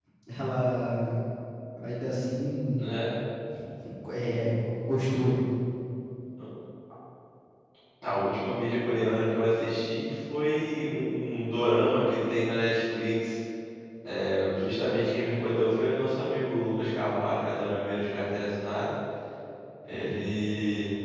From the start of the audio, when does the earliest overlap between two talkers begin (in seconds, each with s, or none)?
none